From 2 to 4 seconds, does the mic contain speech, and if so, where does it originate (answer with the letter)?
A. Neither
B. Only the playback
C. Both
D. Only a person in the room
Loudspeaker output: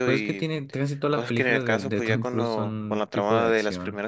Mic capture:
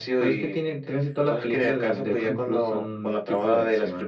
B